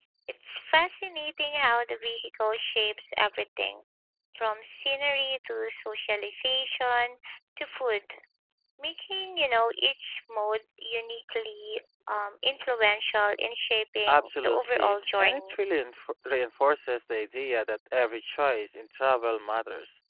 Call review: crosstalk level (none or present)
present